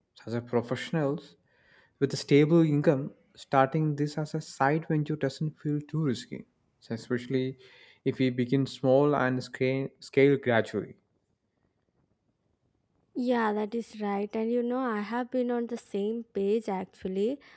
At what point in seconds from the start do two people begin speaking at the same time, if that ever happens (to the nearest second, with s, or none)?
none